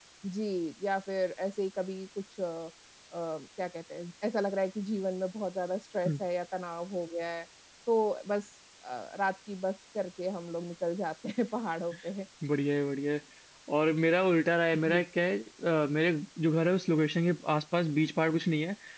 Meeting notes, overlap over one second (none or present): none